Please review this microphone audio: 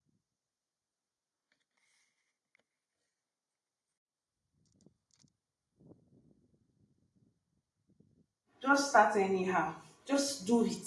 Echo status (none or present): none